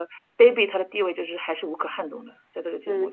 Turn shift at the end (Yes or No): Yes